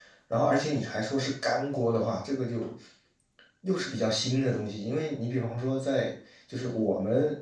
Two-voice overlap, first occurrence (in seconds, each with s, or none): none